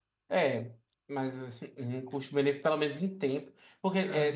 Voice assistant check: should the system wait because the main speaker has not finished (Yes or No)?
Yes